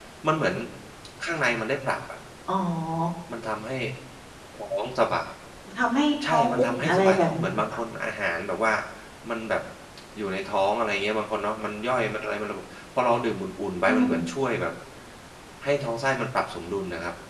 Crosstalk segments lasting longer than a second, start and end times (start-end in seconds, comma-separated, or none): 6.2-7.6